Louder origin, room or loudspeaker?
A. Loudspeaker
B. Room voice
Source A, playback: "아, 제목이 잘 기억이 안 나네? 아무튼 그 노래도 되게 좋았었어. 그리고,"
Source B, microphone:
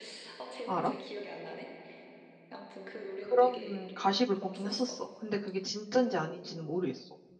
B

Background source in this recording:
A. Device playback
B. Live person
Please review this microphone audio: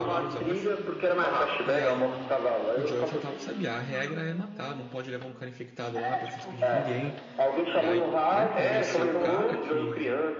B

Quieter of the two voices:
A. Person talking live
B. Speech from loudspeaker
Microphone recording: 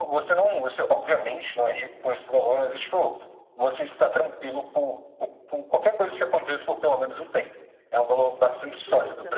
A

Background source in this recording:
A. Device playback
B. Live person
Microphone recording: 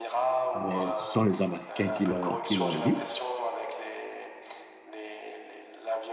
A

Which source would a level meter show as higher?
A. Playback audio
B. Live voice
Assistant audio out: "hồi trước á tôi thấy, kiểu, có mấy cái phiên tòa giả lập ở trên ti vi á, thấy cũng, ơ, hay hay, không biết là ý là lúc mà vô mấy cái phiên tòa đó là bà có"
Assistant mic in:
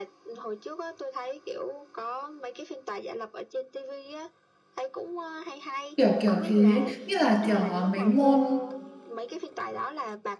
B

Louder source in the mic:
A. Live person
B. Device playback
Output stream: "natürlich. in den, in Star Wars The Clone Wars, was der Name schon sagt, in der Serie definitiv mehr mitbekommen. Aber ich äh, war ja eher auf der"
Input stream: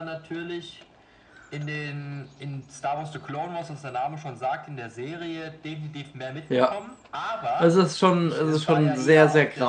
A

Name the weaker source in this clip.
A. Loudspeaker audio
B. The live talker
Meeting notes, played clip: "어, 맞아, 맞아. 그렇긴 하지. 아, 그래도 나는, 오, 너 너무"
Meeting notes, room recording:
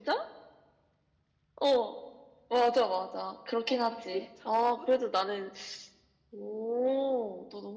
B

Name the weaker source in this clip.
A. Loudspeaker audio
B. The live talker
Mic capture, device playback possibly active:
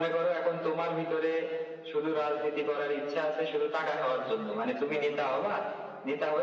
B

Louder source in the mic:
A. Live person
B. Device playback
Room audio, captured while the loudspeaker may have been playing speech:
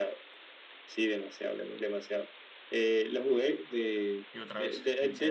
B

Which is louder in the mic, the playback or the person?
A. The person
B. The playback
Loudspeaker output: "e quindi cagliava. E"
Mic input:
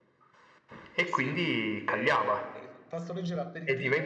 B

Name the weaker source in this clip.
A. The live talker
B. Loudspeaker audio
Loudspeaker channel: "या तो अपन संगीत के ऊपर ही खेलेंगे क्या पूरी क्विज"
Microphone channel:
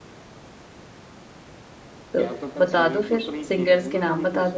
B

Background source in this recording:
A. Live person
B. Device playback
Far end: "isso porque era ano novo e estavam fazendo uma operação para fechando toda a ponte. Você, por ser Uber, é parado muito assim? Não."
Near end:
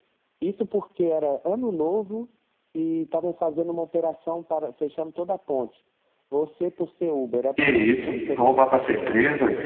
B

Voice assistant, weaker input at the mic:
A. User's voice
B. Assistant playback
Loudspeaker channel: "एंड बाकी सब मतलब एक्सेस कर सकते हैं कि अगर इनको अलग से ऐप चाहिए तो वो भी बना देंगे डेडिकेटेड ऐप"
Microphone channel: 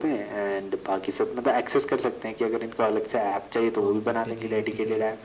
A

